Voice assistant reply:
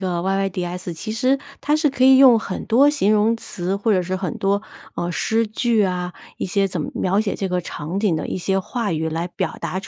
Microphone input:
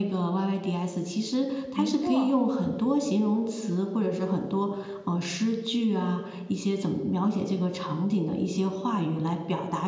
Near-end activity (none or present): present